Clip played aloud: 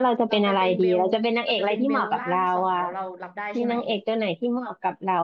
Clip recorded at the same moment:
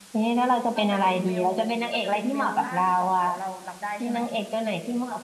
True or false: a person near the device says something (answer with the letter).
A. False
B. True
A